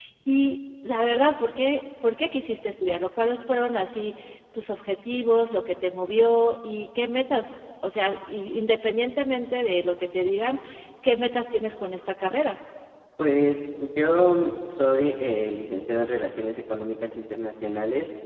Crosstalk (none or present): none